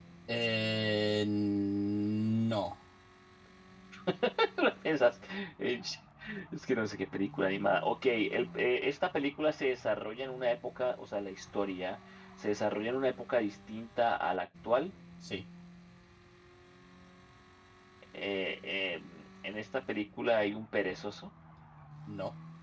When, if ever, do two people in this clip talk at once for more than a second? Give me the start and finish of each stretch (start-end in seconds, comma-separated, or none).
none